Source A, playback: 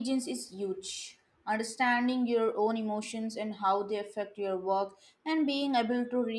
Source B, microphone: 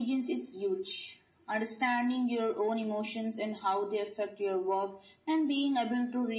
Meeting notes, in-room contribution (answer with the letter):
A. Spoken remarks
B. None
B